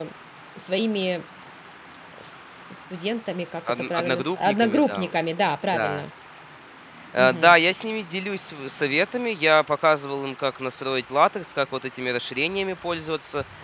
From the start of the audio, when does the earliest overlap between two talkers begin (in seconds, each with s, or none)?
3.7 s